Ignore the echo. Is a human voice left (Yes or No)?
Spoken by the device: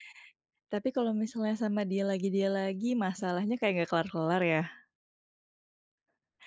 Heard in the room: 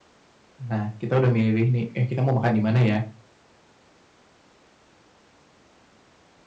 Yes